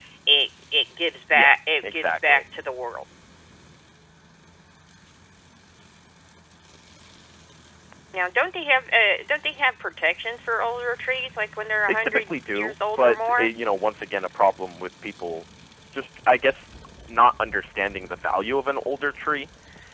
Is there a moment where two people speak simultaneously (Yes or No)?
Yes